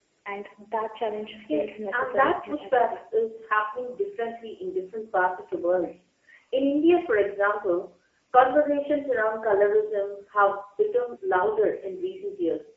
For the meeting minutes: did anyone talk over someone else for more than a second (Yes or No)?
Yes